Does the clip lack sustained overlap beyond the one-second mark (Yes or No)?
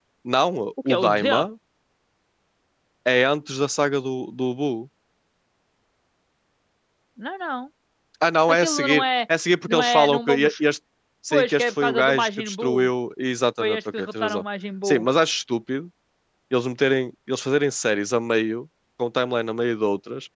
No